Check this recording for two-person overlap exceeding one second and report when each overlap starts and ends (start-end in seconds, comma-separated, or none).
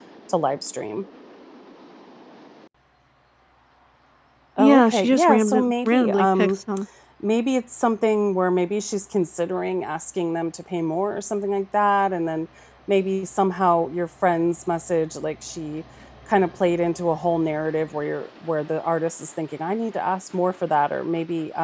4.6-6.6